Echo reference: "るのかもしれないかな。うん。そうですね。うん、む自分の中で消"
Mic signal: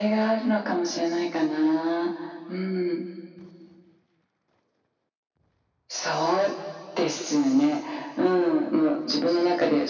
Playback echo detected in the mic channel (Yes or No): Yes